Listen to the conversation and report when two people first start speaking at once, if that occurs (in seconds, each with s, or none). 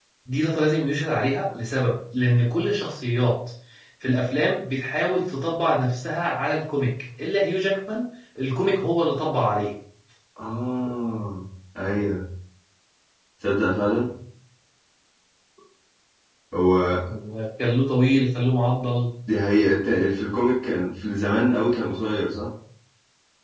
none